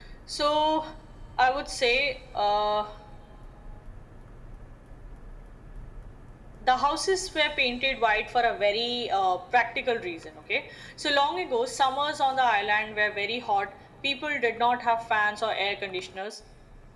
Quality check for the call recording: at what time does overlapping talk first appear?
none

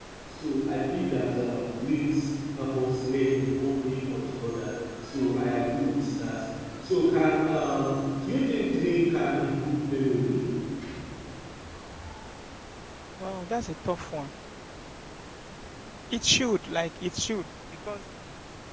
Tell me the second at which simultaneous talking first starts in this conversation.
none

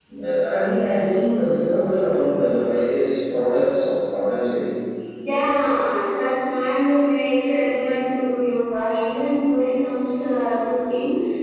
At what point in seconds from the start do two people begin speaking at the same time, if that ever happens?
none

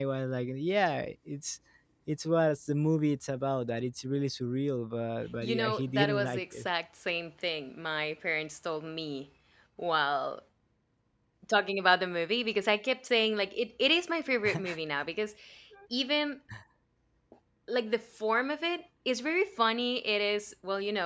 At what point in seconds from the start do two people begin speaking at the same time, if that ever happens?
5.4 s

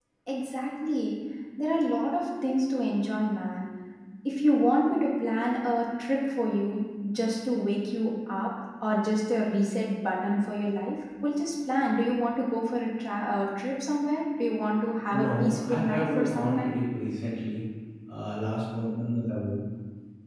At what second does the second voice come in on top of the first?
15.1 s

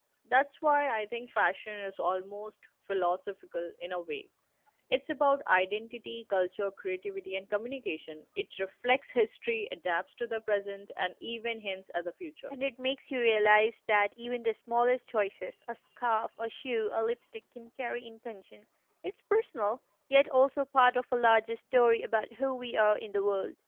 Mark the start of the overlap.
none

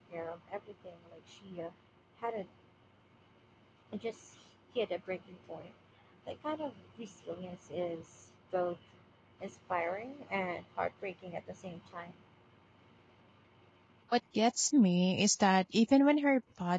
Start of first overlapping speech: none

